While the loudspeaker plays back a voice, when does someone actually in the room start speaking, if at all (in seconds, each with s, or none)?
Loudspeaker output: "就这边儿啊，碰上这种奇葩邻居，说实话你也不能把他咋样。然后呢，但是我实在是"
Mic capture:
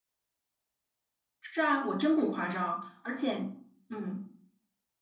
1.4 s